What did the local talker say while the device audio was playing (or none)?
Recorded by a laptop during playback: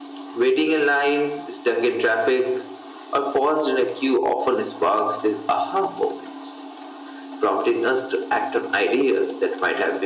none